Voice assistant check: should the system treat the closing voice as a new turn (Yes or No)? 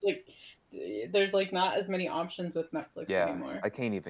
Yes